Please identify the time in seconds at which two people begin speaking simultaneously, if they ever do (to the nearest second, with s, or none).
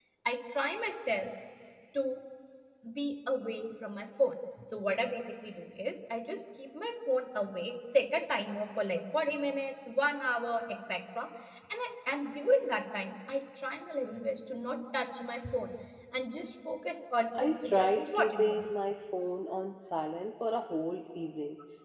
17 s